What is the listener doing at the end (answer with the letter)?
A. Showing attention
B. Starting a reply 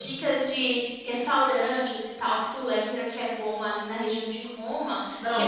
A